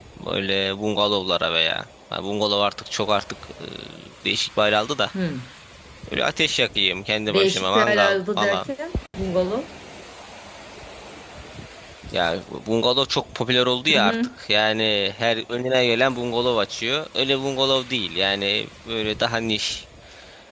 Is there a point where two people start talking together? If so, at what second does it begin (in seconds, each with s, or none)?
7.3 s